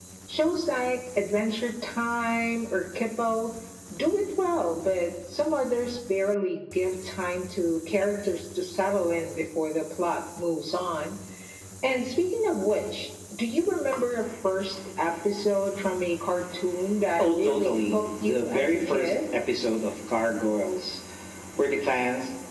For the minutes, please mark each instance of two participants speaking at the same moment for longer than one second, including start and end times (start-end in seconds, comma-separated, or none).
17.2-19.1